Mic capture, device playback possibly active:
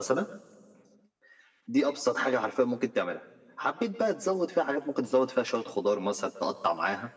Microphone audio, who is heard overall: echo only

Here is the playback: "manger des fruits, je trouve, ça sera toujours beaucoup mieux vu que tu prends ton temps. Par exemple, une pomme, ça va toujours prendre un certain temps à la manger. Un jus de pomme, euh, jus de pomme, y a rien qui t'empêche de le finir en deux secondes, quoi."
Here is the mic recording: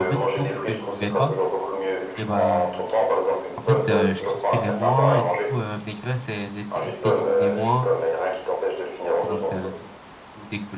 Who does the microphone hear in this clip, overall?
both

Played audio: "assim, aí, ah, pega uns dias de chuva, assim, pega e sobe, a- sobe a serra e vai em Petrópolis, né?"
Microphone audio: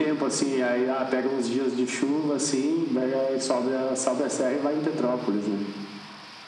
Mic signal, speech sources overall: echo only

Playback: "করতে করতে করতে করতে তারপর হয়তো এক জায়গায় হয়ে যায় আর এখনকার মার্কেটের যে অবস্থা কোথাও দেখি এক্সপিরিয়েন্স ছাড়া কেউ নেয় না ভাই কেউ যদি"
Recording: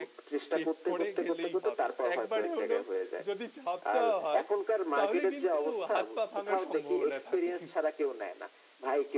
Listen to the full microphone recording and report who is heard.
both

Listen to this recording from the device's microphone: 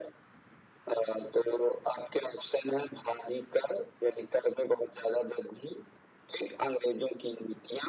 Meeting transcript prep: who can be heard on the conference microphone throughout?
echo only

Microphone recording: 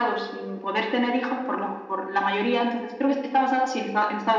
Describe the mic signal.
echo only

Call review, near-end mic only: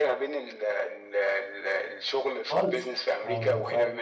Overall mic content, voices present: both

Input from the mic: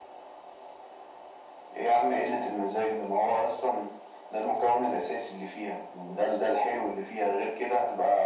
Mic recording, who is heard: echo only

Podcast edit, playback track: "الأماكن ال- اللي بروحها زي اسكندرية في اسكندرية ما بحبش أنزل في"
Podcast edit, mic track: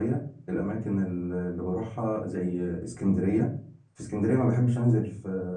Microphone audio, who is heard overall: echo only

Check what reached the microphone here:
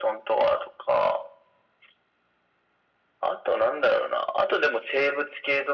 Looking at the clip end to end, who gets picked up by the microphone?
echo only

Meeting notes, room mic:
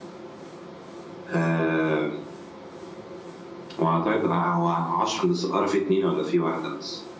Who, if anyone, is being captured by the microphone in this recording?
echo only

